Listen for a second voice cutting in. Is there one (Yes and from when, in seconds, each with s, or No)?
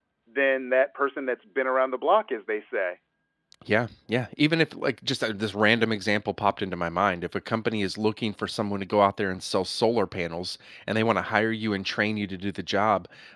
No